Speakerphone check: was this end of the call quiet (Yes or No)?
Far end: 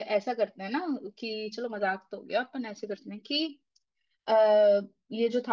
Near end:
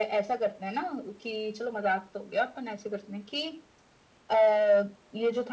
Yes